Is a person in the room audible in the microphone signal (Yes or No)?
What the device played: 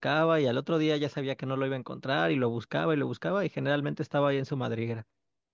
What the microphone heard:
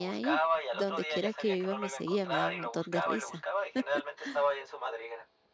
Yes